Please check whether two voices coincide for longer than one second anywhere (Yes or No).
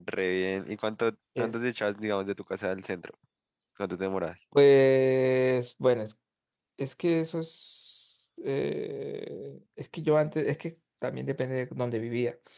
No